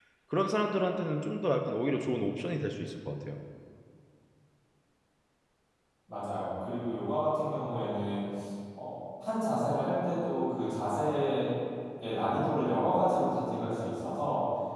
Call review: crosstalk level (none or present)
none